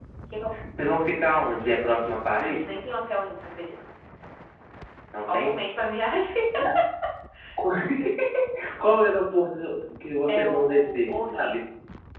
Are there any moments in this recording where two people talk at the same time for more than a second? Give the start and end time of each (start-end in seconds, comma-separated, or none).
10.3-11.6